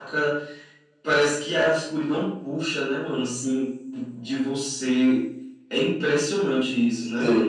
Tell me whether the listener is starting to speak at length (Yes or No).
Yes